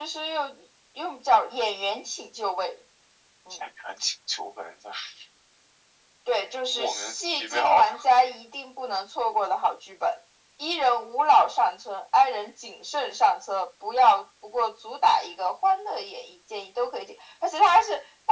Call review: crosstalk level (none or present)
present